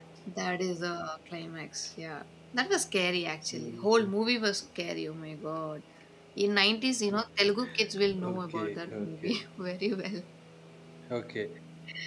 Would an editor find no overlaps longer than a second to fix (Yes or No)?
No